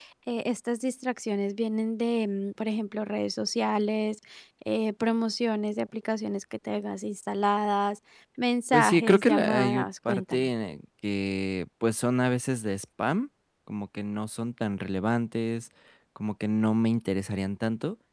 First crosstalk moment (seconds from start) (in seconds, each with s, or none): 8.7 s